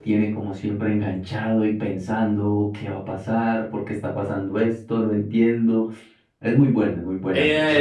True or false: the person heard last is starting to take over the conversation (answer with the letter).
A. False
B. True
B